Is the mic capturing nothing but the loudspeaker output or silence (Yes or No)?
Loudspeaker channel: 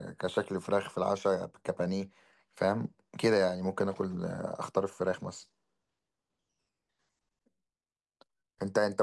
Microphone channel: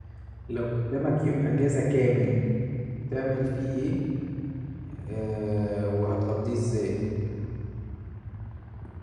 No